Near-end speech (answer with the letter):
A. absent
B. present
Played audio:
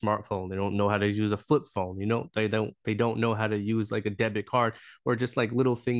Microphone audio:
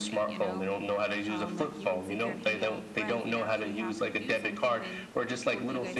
B